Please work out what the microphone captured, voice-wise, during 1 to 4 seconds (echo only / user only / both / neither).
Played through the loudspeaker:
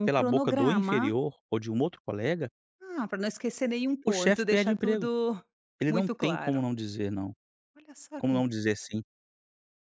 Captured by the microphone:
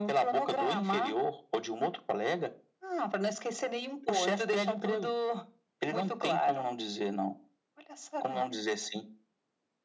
echo only